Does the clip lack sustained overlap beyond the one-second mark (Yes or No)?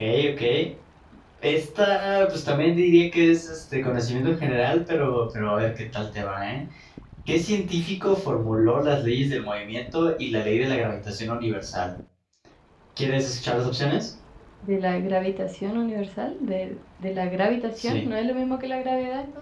Yes